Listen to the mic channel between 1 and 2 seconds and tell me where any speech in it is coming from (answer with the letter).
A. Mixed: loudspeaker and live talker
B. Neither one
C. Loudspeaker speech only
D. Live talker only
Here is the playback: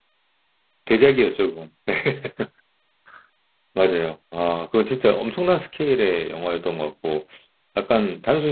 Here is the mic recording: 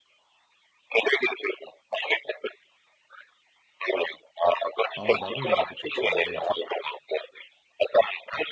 C